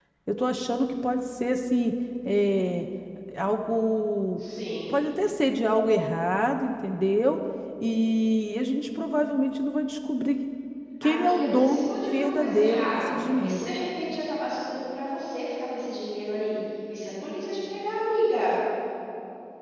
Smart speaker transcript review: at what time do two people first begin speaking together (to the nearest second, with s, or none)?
11 s